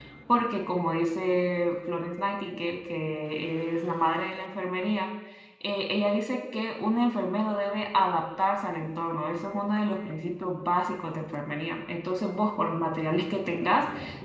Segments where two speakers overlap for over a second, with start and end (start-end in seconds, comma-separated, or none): none